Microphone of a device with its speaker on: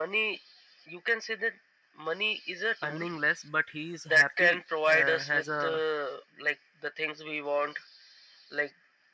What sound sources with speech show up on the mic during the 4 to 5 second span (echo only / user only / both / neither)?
both